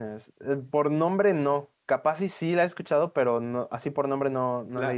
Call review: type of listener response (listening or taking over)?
taking over